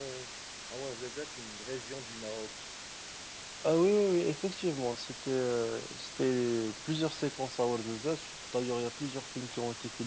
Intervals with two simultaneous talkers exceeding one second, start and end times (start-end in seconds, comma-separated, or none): none